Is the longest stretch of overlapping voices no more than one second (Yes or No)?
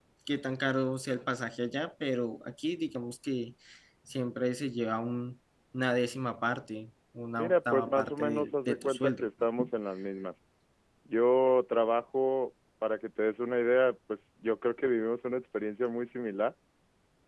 No